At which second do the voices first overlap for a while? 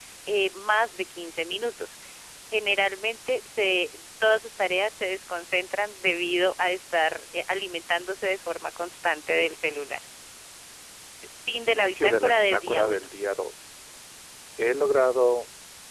11.6 s

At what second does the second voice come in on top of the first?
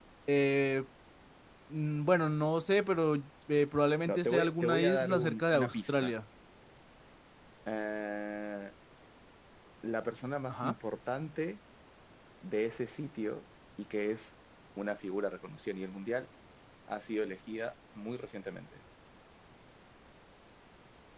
4.0 s

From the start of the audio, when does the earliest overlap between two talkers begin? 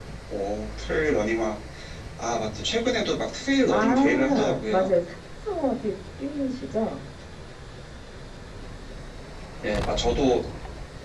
3.7 s

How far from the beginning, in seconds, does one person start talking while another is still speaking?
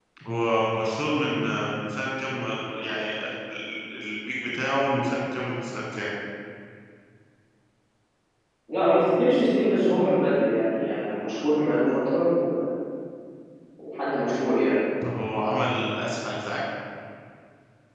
none

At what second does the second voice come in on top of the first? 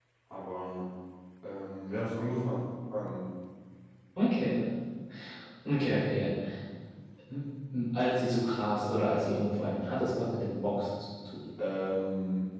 none

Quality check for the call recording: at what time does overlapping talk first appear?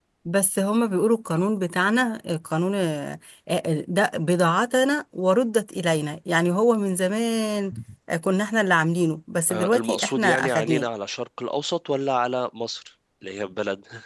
9.5 s

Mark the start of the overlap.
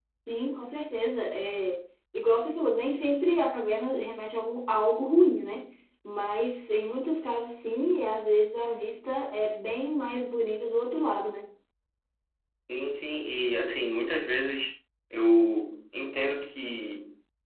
none

